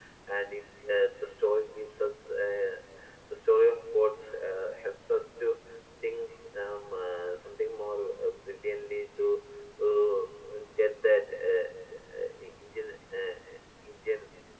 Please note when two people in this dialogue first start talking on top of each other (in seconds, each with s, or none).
none